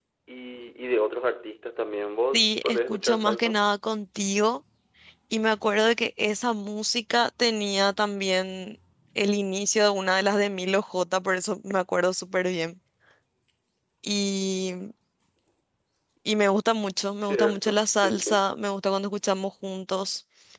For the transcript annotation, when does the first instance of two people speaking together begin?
2.3 s

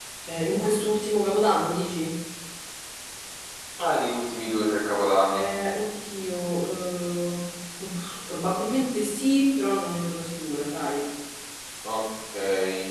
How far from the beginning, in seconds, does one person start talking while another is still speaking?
none

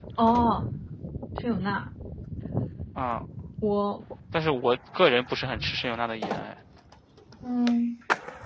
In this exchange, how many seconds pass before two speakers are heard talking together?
none

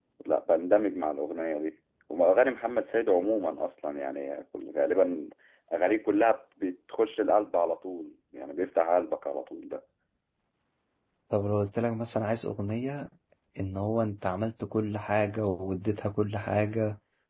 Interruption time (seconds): none

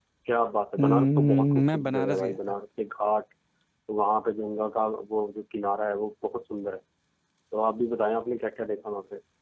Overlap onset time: 0.8 s

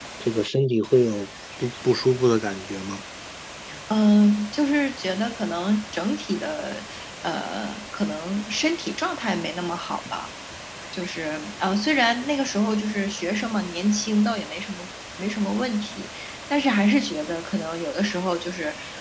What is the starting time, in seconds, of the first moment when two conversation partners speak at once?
none

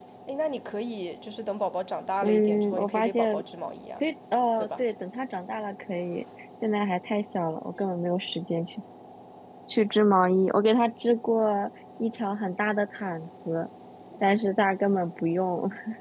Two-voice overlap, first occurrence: 2.2 s

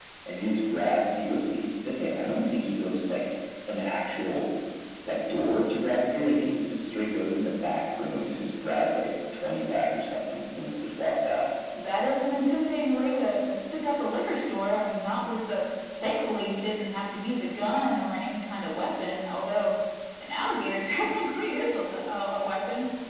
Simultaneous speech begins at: none

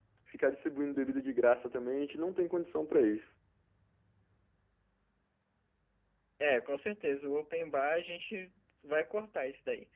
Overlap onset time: none

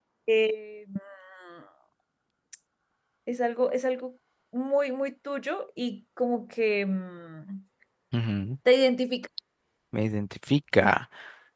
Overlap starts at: none

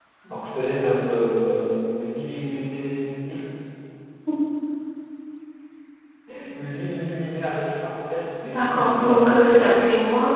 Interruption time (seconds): 8.4 s

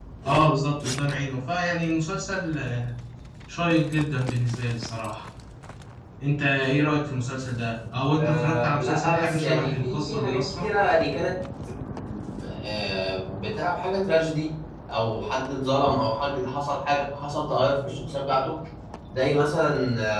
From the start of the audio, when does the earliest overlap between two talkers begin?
8.2 s

